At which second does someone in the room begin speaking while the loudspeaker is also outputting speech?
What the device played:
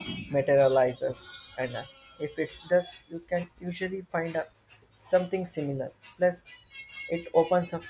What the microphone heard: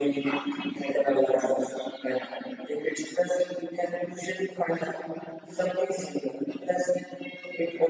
none

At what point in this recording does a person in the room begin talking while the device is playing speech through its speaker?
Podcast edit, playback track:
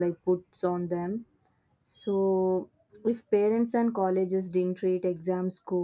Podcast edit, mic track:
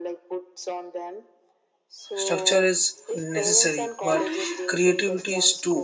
2.1 s

